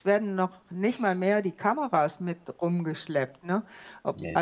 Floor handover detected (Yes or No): No